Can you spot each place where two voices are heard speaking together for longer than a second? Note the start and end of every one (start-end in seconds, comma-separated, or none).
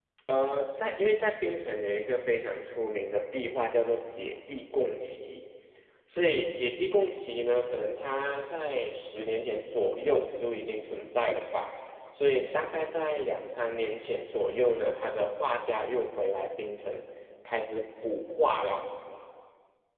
none